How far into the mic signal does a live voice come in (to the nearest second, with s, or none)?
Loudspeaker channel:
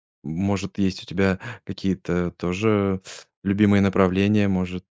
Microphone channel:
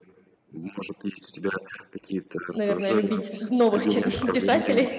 2 s